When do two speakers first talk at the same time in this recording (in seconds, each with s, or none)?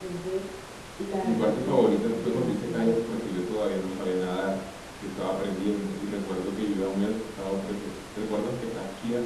1.2 s